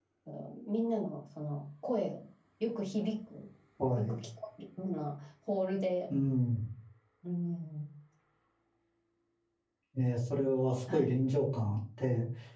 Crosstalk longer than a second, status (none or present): none